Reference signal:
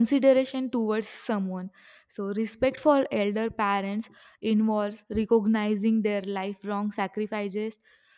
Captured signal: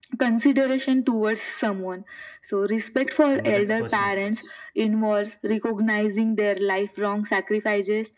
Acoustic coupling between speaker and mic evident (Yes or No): Yes